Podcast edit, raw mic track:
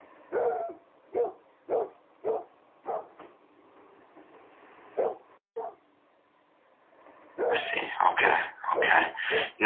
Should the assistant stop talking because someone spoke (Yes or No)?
Yes